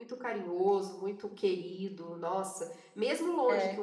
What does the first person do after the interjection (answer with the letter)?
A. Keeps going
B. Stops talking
A